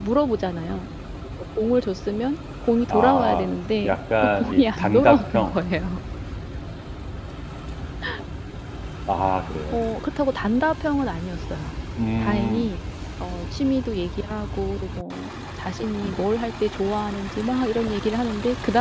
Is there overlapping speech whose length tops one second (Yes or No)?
Yes